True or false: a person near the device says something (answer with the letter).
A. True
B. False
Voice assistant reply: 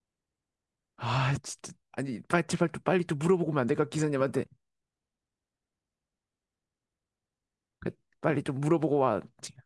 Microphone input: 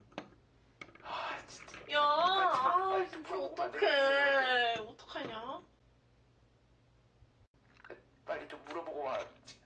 A